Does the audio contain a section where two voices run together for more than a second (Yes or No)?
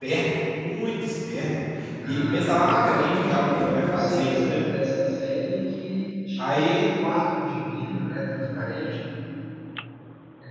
Yes